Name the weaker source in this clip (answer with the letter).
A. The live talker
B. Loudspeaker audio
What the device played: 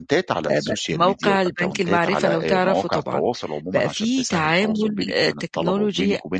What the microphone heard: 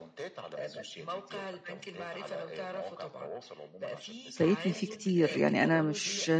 B